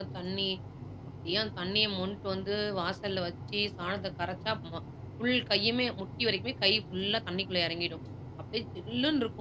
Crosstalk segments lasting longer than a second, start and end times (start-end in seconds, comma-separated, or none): none